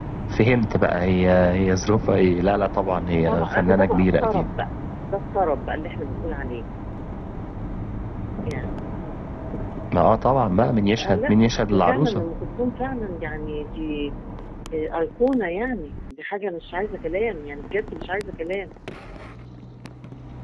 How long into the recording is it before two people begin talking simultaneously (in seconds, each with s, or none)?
2.9 s